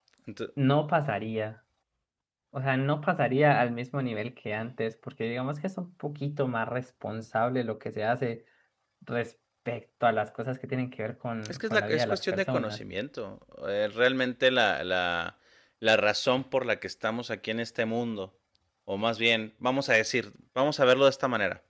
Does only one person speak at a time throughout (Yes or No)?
No